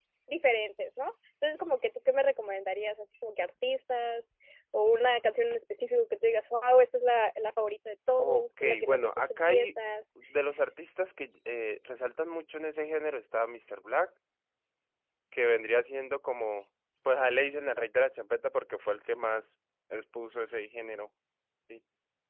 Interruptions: present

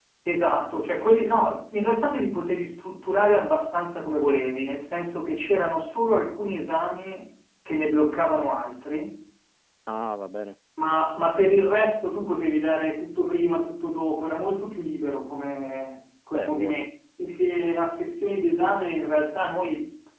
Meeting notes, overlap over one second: none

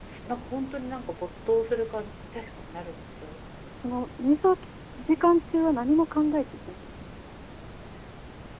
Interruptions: none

